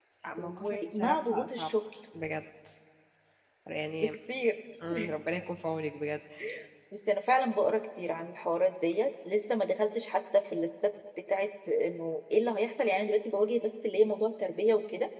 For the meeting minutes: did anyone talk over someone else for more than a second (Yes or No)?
Yes